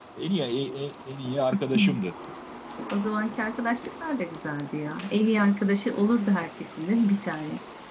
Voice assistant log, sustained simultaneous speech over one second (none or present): none